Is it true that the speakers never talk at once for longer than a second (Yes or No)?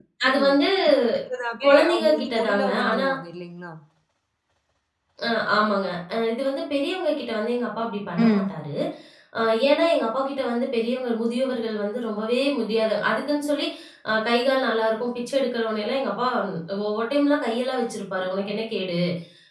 No